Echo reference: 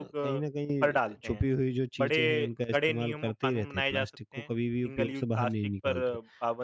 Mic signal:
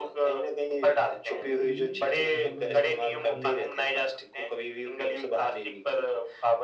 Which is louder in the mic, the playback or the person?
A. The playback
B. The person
A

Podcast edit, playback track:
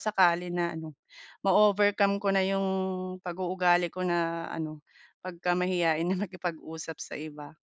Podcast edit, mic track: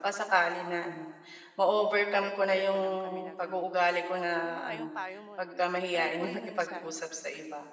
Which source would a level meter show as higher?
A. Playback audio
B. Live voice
A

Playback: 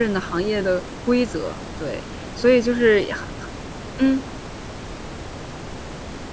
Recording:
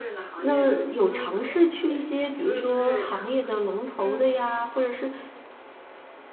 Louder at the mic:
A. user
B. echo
A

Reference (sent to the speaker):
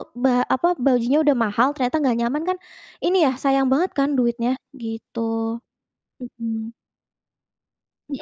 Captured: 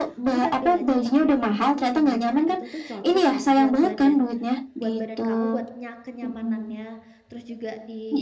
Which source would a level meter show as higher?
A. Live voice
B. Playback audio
B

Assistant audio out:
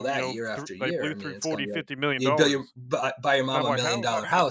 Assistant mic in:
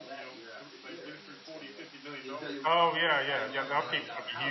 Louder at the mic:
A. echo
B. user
B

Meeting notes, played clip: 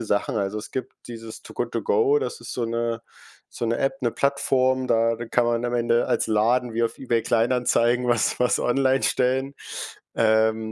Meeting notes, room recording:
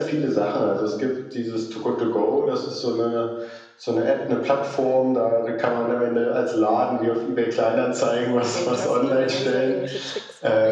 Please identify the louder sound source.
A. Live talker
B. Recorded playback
B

